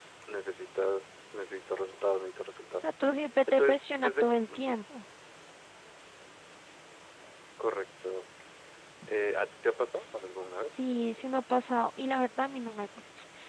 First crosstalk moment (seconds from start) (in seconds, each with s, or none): 3.5 s